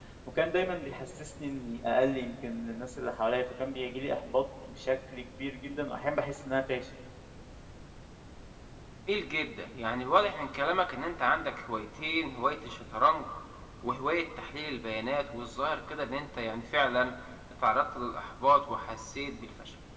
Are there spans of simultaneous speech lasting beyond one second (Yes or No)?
No